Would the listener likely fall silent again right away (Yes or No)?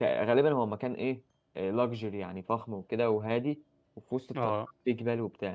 Yes